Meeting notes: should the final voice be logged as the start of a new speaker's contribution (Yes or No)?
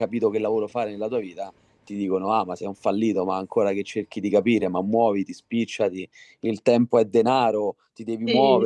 No